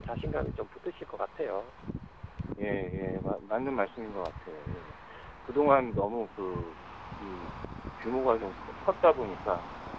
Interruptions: none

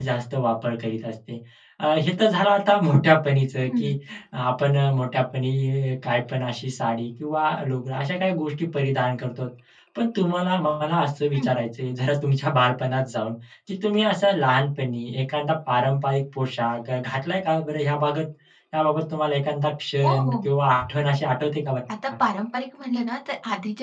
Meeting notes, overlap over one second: none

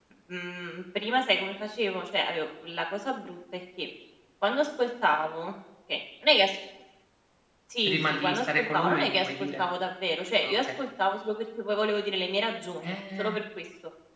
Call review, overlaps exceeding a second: present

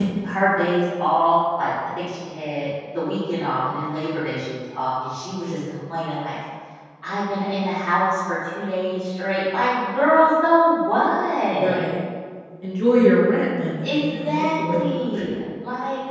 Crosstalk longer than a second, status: present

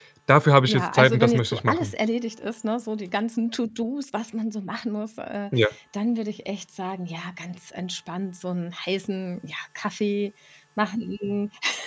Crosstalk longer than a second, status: present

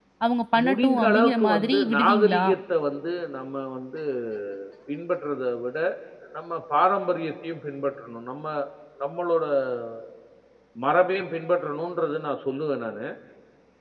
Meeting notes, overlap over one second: present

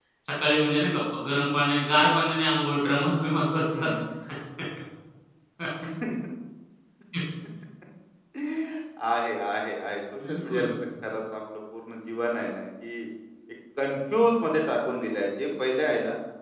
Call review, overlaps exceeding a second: none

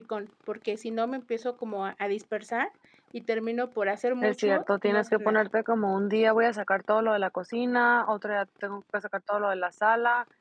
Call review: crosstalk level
present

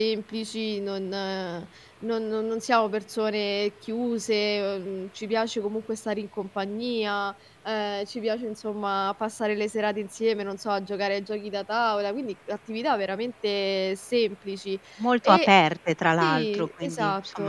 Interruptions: present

